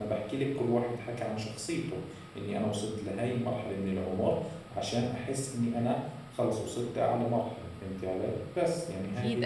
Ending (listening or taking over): taking over